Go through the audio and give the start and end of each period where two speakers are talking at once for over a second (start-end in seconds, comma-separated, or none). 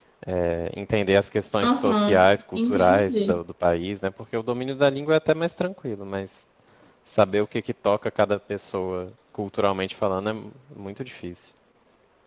1.6-3.4